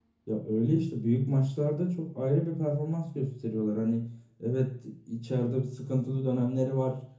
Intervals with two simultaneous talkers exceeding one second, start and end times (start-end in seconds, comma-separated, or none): none